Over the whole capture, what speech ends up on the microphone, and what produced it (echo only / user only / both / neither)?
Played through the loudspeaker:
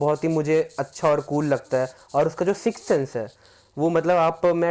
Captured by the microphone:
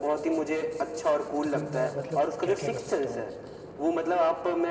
both